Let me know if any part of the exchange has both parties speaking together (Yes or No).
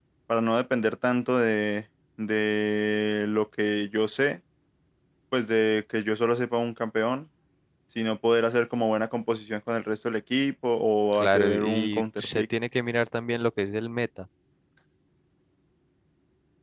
Yes